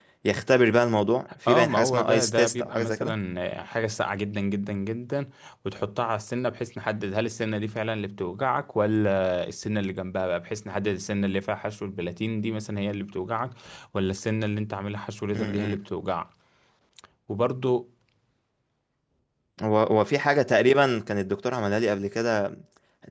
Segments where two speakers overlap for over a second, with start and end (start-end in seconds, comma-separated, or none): 1.5-3.1